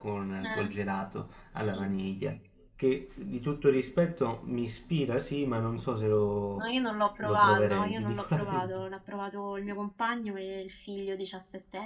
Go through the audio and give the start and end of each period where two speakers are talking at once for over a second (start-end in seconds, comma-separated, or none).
7.2-8.8